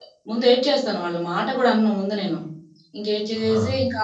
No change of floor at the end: Yes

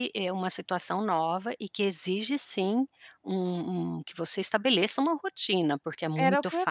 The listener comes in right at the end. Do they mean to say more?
Yes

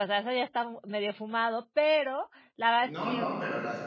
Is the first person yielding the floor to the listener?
Yes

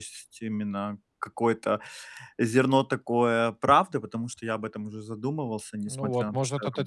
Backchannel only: No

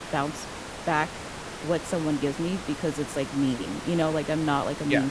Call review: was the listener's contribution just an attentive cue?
Yes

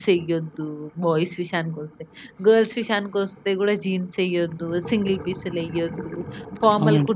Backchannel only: Yes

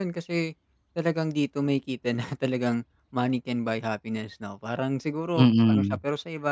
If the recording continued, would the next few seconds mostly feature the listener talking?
No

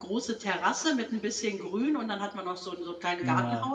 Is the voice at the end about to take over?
No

